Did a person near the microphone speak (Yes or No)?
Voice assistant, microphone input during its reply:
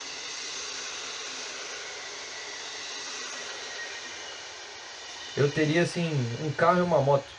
Yes